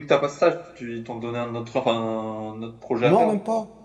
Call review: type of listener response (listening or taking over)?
taking over